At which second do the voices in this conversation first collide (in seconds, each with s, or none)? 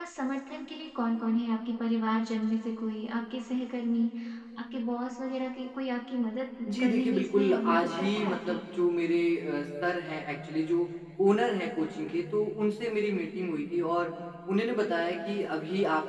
6.7 s